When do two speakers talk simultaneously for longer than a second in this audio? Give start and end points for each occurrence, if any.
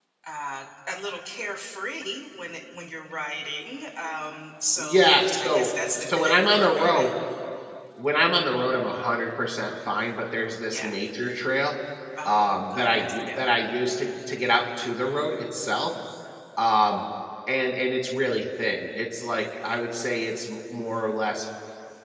4.8-7.1, 12.2-13.5

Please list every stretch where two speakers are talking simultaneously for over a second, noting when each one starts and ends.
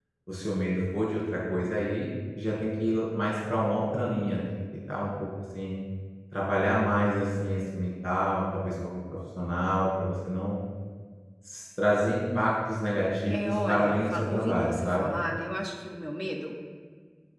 13.3-15.1

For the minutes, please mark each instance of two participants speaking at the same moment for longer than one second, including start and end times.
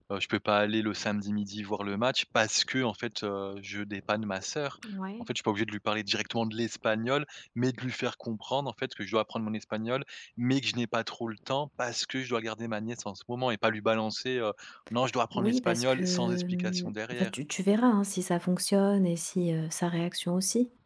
15.3-17.3

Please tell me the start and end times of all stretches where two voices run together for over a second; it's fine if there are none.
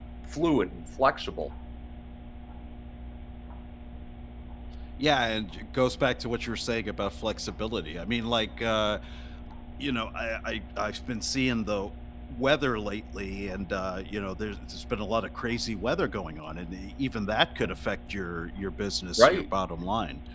none

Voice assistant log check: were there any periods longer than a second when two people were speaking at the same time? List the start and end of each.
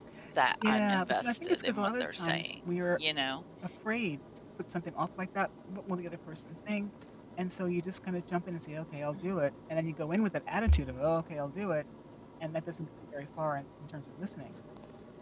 0.6-3.0

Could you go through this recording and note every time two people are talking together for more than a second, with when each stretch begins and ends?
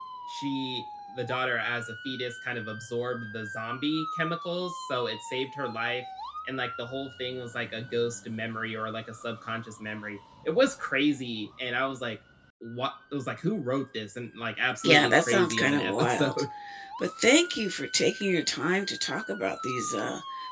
14.8-16.3

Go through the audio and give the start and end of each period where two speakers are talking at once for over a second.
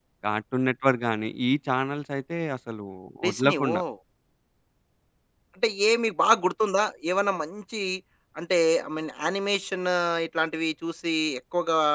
none

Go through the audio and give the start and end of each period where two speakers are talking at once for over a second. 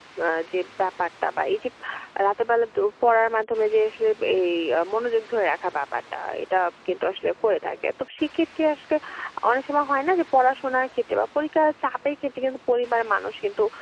none

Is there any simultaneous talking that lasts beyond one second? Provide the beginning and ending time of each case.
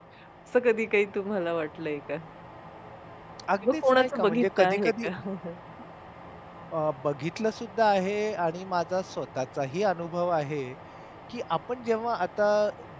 3.6-5.1

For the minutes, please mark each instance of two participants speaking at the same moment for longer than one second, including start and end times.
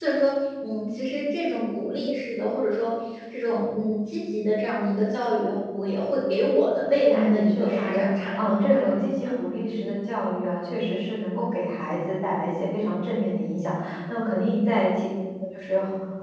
7.1-9.2

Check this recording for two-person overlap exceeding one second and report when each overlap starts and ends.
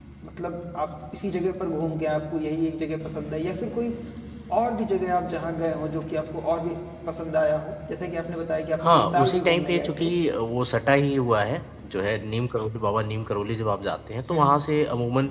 8.8-10.1

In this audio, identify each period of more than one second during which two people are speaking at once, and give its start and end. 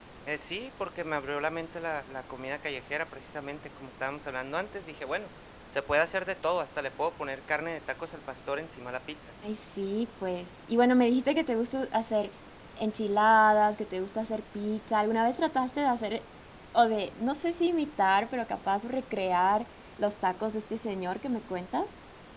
none

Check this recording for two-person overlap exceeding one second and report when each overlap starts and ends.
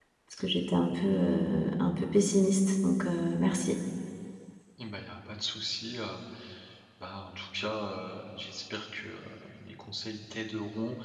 none

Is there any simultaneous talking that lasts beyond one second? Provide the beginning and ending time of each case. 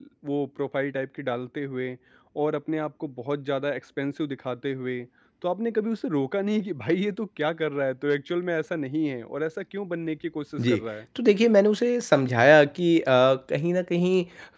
none

